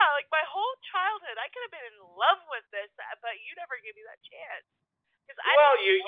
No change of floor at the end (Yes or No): No